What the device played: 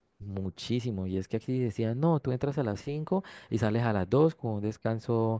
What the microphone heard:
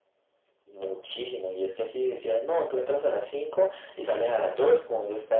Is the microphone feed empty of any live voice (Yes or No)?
Yes